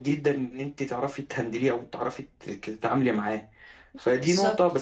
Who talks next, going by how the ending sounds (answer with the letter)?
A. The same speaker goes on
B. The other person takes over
A